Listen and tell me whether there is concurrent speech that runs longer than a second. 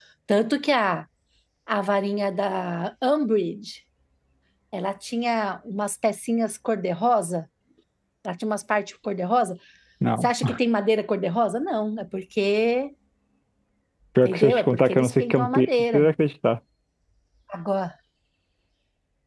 Yes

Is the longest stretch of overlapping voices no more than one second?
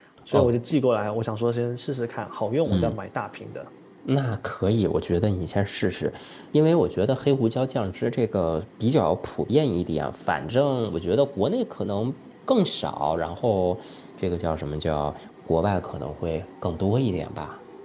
Yes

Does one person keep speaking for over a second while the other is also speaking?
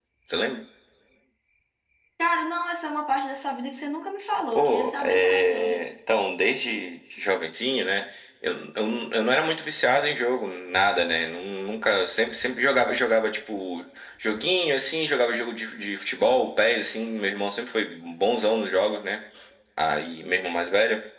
Yes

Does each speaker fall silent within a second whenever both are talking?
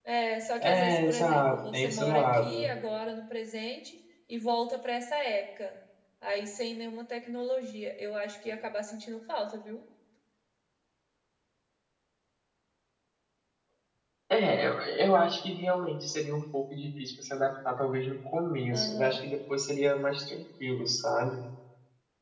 No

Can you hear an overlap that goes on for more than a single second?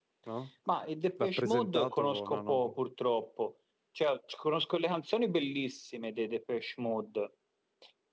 Yes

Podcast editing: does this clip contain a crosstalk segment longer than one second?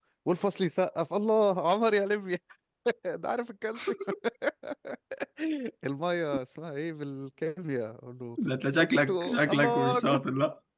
Yes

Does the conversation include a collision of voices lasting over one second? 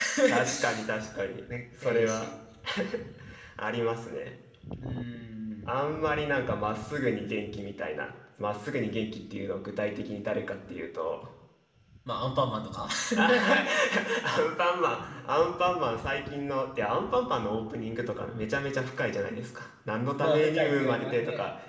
Yes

